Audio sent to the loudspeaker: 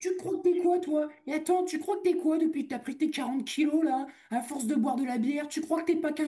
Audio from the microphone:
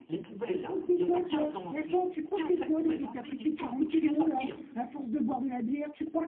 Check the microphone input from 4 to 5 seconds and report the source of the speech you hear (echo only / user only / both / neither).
both